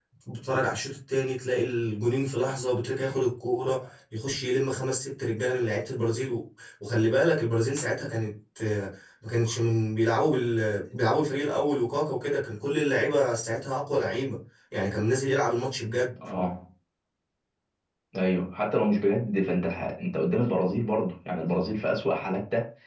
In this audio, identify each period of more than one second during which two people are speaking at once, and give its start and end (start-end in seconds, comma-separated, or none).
none